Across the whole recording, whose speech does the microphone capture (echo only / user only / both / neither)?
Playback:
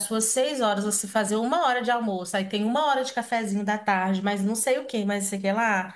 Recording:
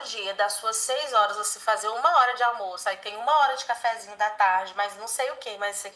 echo only